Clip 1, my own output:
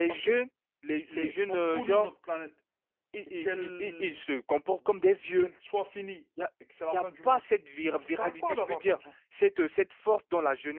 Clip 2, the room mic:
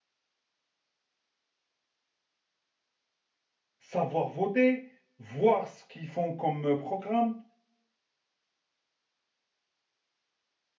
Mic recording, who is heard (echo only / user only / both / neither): user only